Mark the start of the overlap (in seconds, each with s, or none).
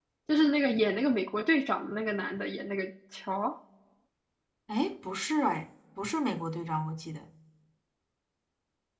none